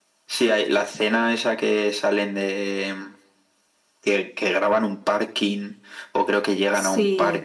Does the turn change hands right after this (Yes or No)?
No